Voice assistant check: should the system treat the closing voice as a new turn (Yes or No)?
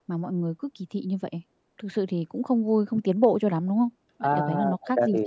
Yes